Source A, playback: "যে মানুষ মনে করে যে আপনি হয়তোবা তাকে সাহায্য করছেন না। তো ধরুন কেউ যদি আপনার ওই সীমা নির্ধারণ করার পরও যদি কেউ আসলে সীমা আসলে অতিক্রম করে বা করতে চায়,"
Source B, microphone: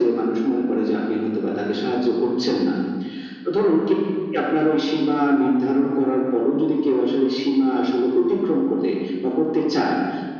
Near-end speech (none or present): none